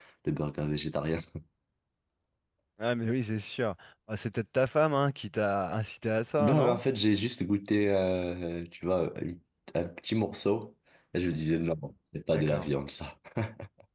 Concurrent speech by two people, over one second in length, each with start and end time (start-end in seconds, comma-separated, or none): none